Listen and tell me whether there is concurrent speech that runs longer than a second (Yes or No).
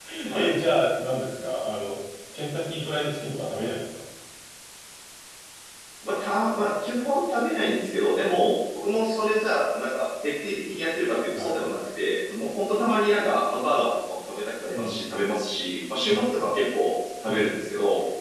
No